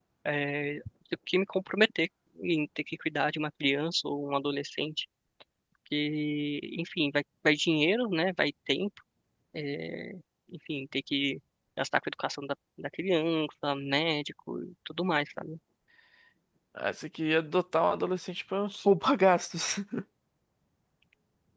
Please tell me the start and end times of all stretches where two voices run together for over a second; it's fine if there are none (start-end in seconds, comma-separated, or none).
none